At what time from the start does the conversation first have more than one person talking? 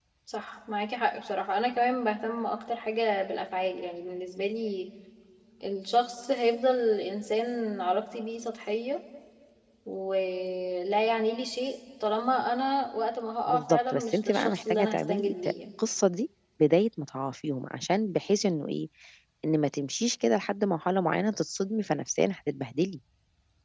13.5 s

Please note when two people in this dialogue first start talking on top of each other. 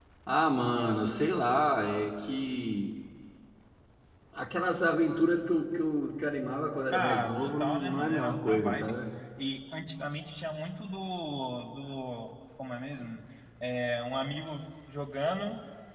6.9 s

